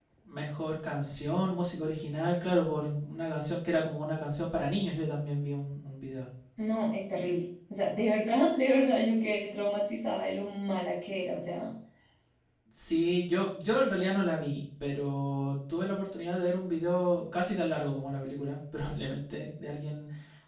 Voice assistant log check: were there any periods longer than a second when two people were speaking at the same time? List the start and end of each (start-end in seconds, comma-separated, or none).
none